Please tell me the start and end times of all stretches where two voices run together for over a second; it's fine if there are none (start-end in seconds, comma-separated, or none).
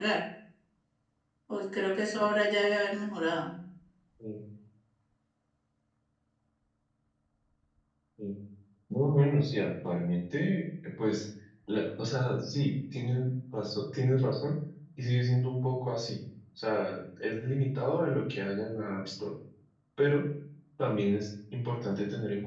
none